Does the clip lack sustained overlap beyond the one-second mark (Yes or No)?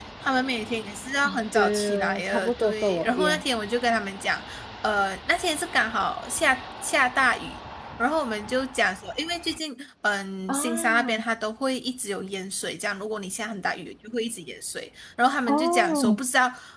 No